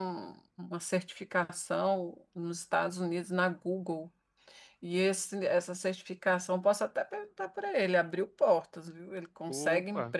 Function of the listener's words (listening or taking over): listening